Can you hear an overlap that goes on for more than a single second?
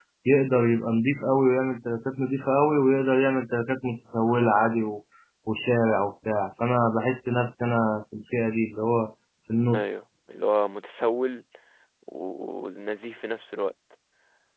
No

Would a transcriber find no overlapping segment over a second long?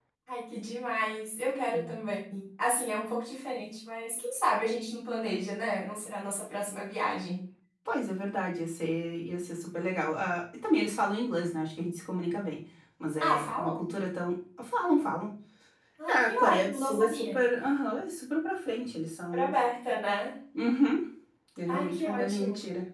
No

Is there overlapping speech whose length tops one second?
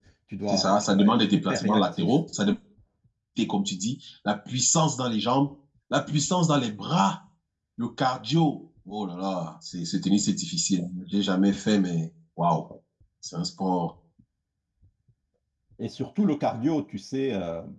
Yes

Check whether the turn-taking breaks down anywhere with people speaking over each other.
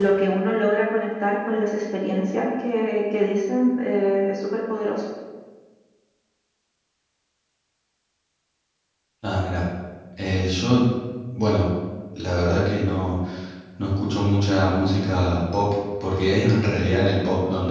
No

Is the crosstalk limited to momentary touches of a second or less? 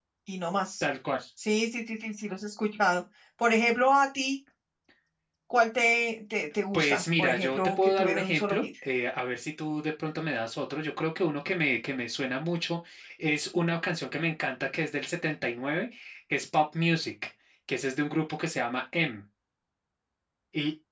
No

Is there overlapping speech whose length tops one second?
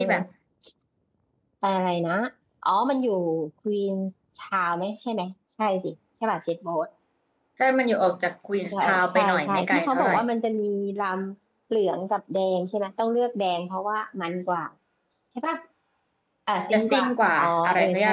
Yes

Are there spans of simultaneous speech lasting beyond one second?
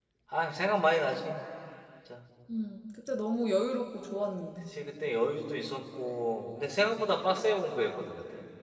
No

